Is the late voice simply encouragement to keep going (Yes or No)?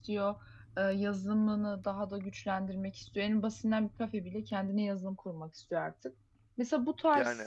Yes